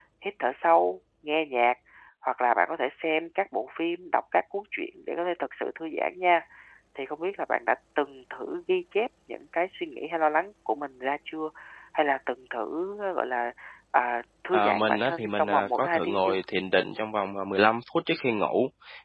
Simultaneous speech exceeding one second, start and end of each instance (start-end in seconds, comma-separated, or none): 14.5-16.4